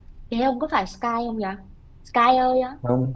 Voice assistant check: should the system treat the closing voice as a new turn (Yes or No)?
Yes